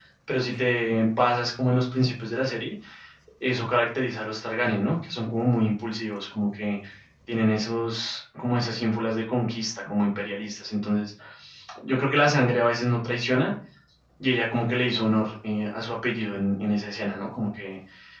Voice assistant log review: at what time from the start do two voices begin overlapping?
none

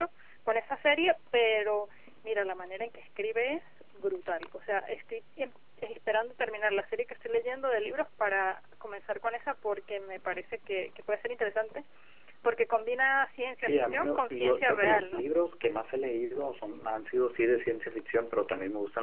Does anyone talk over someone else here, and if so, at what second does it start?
13.6 s

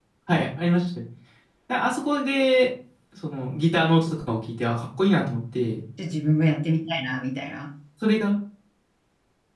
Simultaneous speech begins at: none

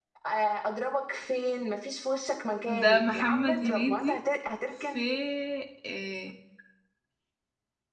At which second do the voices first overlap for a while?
2.7 s

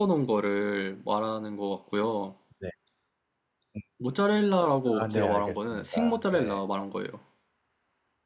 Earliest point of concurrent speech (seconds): 4.9 s

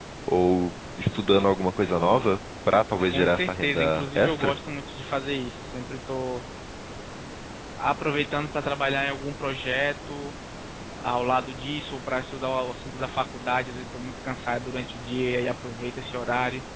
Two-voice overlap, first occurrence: 3.1 s

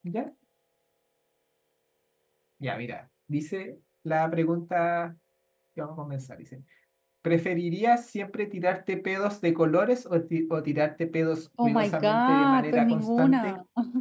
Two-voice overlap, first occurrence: 11.6 s

